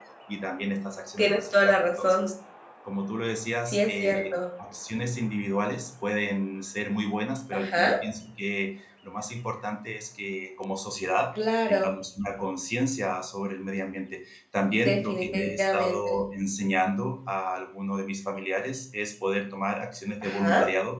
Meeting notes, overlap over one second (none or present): present